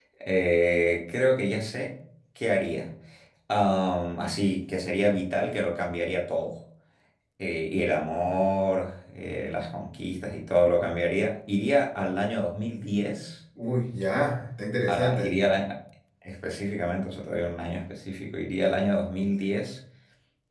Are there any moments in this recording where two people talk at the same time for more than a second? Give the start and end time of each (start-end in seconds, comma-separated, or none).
none